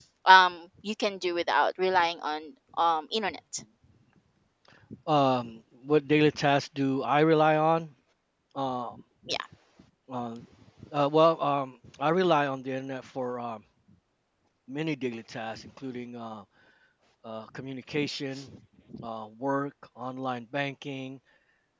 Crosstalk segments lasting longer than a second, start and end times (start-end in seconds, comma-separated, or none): none